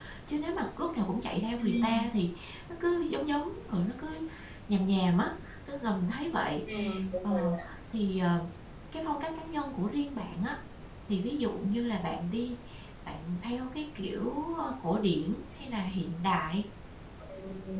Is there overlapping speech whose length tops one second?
No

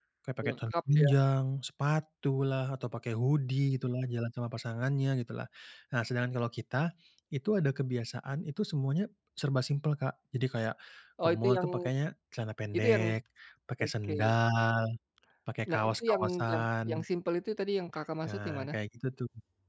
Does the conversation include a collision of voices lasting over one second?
Yes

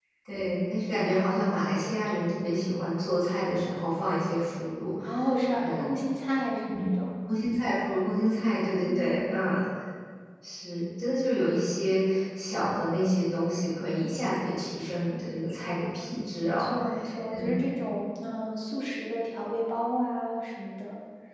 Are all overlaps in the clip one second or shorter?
Yes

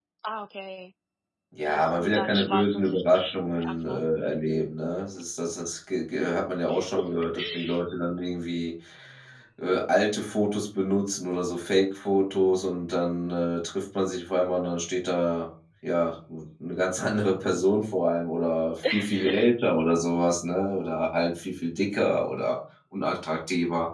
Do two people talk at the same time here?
Yes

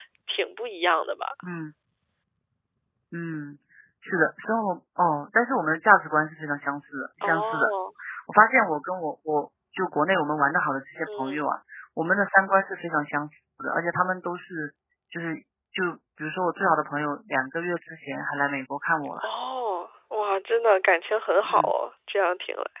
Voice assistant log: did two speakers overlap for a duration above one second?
No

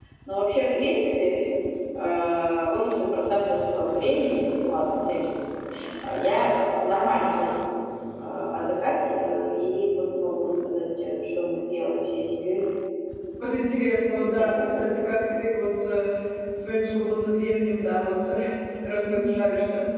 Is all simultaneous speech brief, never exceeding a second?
Yes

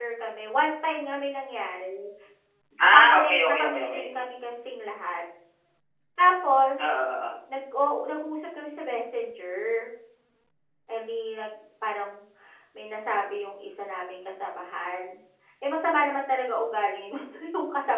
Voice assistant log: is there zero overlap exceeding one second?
No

